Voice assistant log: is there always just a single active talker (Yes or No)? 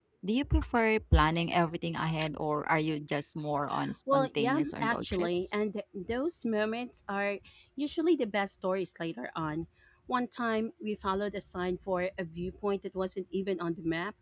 No